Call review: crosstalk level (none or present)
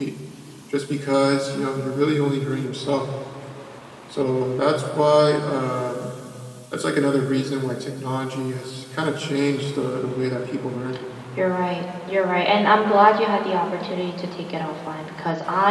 none